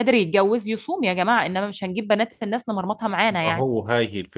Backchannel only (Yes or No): No